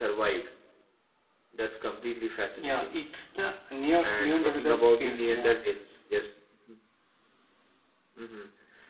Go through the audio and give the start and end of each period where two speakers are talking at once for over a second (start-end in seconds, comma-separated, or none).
4.0-5.6